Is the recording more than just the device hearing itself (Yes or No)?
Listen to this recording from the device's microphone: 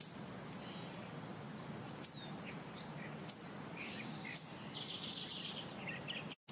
No